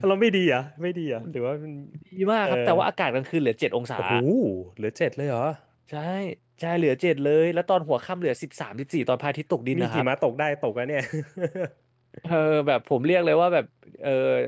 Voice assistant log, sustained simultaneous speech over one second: none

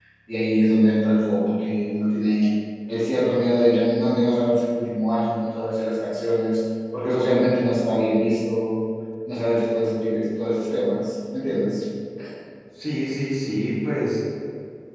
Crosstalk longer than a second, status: none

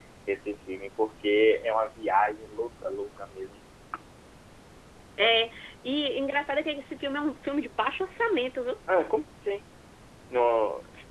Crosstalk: none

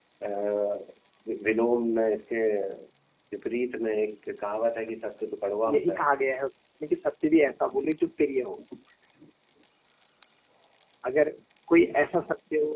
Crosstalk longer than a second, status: none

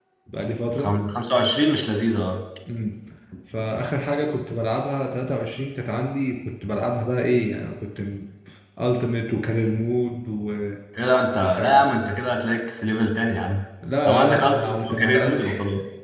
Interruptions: present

